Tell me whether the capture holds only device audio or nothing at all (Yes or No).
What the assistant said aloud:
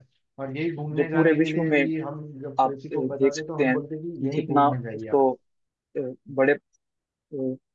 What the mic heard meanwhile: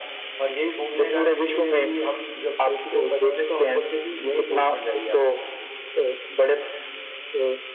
Yes